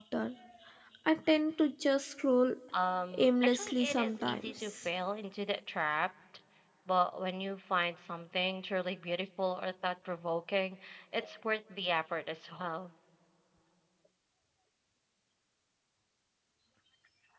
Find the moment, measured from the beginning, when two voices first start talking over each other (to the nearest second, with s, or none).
3 s